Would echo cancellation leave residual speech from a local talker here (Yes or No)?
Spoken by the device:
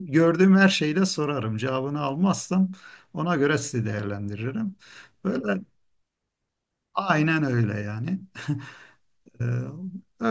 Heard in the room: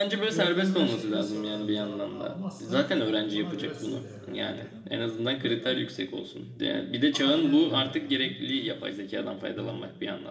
Yes